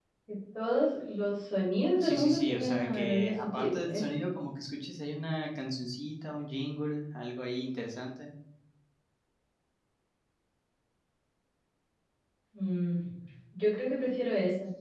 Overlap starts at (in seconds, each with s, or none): 2.0 s